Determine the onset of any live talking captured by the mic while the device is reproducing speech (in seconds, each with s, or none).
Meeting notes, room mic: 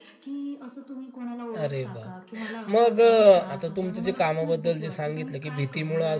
1.5 s